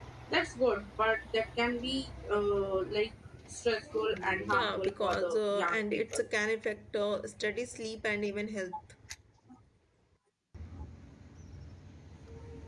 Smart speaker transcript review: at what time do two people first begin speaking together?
4.5 s

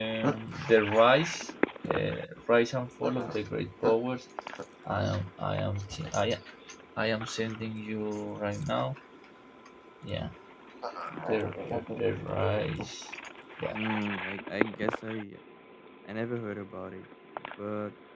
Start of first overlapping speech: none

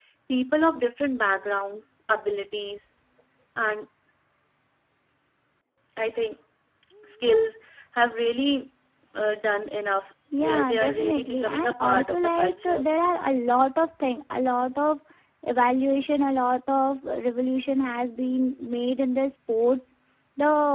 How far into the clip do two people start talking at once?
10.3 s

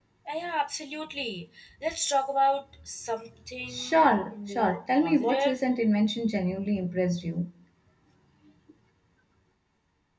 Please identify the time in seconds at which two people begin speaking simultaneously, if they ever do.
3.6 s

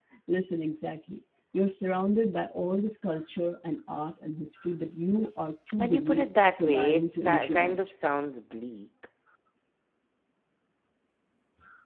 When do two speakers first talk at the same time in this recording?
5.8 s

